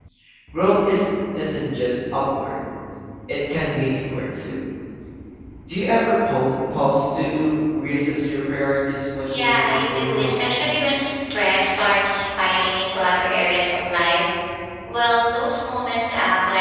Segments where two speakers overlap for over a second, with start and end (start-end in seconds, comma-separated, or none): 9.3-10.6